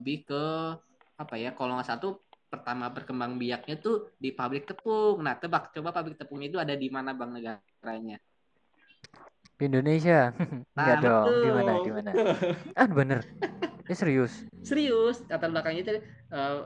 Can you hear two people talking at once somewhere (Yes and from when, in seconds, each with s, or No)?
Yes, from 10.8 s